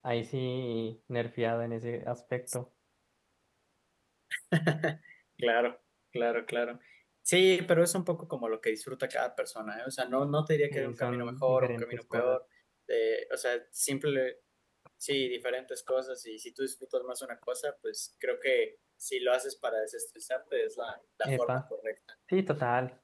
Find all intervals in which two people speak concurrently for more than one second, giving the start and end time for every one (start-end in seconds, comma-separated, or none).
10.7-12.4